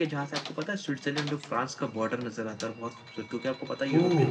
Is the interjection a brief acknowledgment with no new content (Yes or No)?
Yes